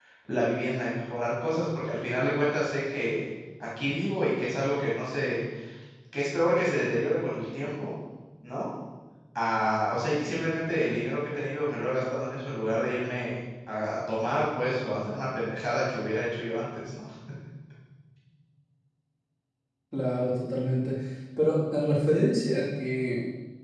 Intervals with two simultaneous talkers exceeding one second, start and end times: none

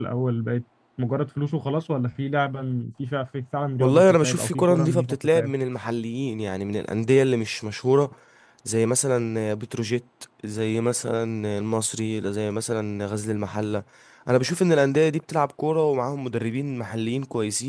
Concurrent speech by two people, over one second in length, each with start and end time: 3.8-5.5

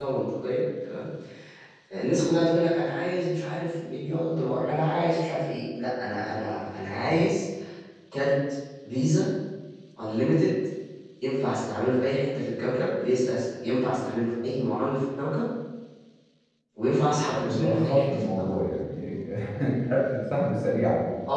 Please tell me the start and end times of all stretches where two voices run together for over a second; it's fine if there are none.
17.3-18.5

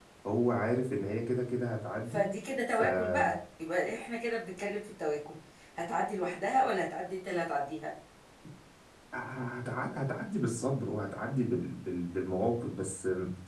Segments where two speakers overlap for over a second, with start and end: none

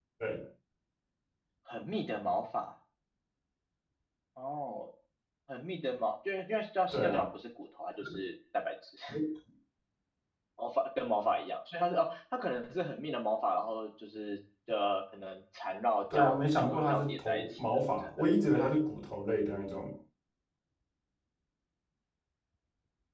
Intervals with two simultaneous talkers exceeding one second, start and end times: 16.1-18.3

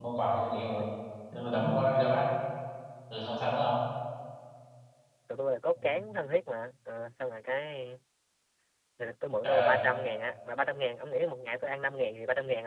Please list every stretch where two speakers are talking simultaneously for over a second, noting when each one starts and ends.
none

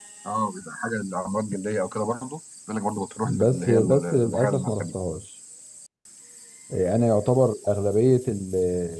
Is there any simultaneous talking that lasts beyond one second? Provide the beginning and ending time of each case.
3.4-5.0

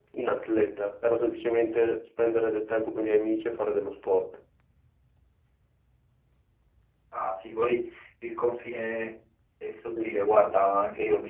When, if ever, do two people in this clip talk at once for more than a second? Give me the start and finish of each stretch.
none

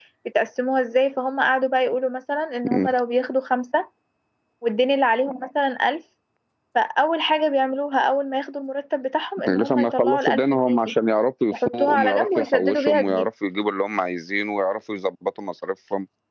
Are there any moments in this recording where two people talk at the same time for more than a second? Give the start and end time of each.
9.5-10.9, 11.5-13.3

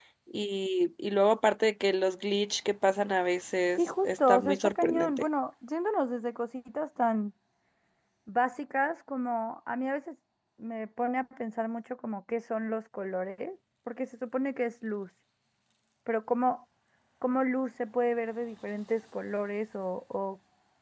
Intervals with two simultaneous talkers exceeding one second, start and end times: 3.8-5.2

